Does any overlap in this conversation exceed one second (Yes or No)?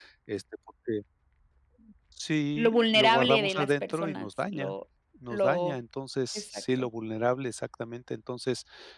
Yes